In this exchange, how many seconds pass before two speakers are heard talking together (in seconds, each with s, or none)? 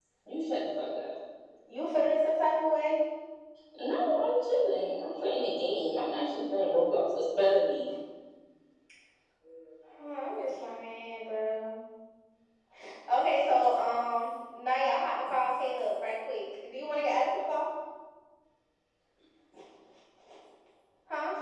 none